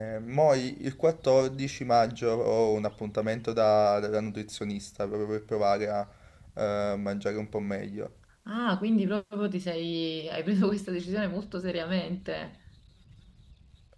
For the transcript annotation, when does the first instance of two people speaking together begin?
none

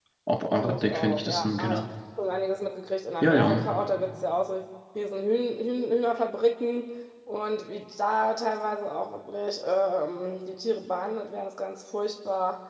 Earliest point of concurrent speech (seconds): 0.6 s

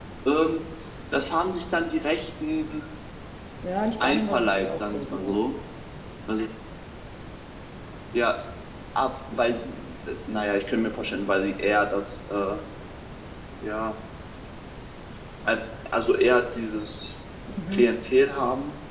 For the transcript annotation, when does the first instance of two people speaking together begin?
4.0 s

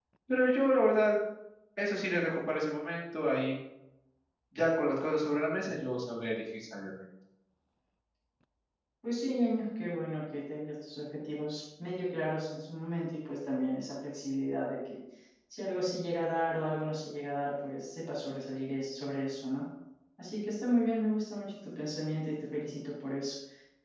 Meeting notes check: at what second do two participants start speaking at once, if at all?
none

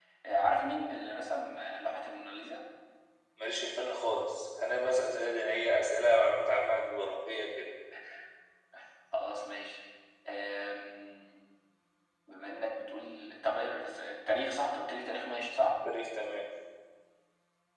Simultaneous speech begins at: none

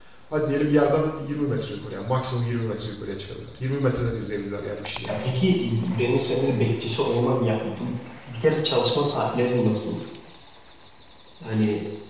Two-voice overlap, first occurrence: none

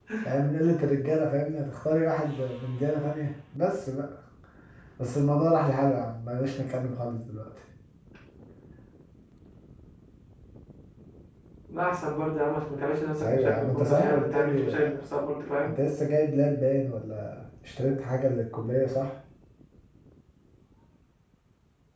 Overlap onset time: 13.2 s

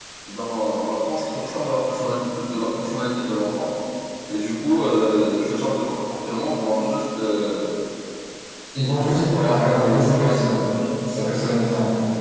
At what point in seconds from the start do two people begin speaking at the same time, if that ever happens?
9.0 s

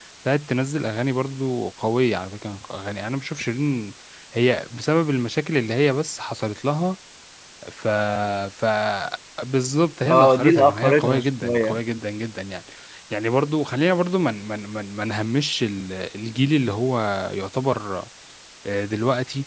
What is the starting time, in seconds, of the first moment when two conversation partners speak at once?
10.1 s

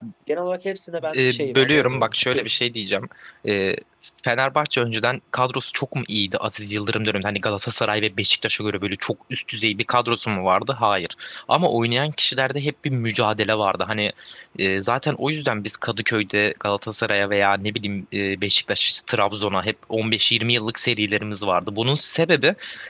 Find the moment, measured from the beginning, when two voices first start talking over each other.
1.1 s

